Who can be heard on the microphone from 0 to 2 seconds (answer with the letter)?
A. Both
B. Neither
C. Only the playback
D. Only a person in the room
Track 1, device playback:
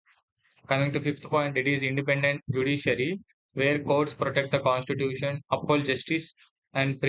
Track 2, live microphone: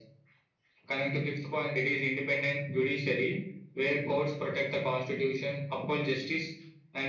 C